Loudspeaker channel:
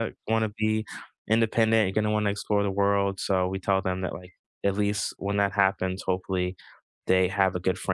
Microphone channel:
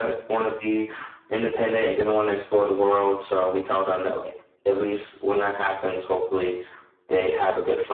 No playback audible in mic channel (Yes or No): No